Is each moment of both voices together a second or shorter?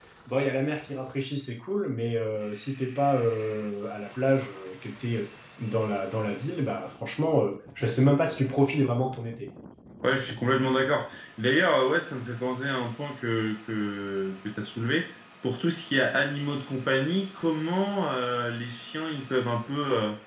Yes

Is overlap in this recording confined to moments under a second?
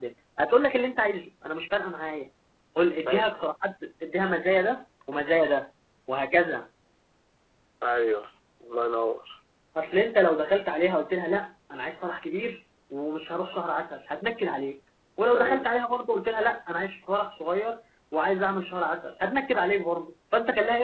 Yes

